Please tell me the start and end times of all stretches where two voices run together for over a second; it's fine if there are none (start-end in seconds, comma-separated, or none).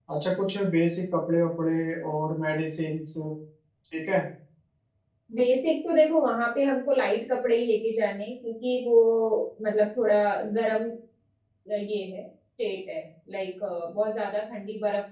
none